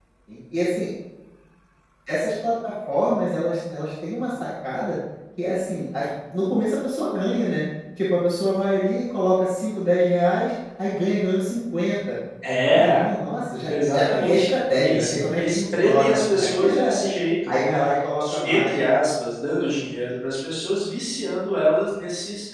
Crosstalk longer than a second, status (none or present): present